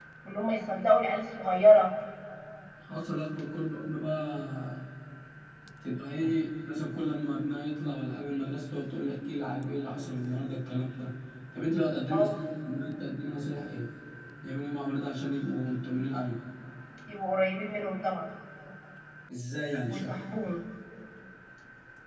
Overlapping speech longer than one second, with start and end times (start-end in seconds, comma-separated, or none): none